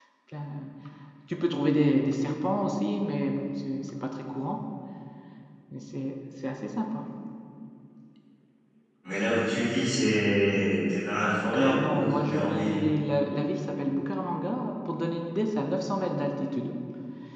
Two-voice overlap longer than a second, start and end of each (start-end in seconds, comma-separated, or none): 11.5-12.8